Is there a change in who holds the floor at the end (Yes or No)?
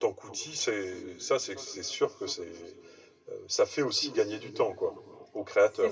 Yes